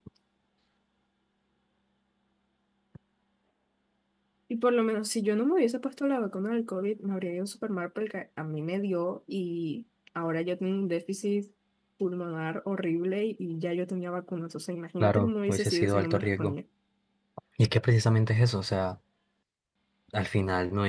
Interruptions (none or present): present